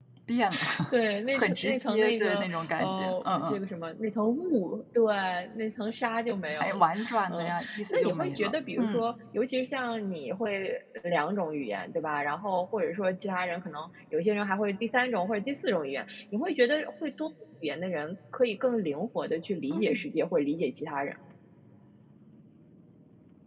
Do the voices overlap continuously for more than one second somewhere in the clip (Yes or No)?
Yes